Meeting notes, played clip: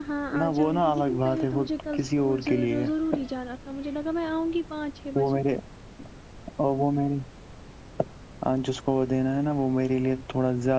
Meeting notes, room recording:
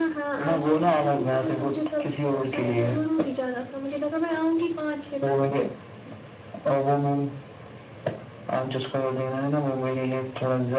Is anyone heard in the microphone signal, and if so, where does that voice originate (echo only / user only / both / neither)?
echo only